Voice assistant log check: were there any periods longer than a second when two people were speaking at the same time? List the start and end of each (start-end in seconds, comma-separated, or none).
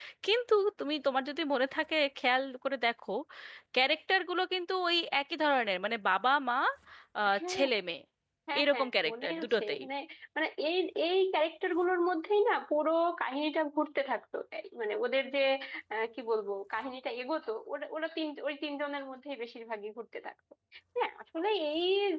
8.6-9.8